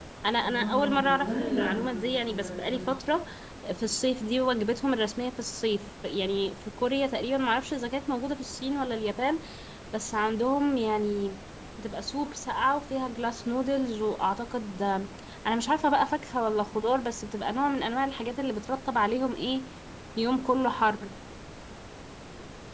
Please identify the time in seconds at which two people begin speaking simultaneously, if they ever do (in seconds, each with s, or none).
0.5 s